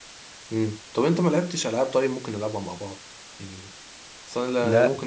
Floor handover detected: No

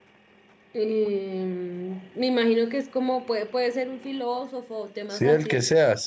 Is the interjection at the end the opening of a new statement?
Yes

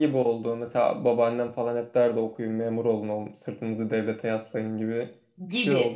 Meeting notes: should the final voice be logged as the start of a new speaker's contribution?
Yes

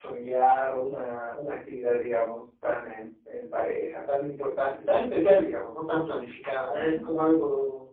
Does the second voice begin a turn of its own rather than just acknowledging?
No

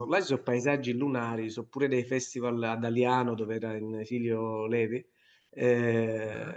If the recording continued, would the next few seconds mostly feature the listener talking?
No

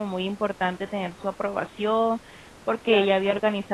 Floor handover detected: No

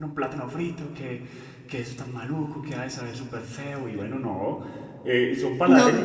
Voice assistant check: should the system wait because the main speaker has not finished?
Yes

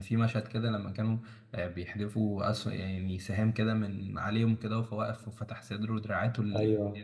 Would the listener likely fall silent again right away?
No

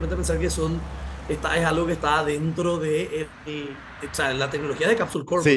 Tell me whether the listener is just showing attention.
No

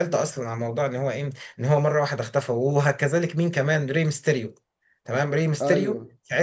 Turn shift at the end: No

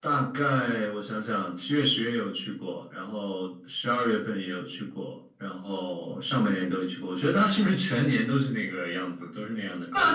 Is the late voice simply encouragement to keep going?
No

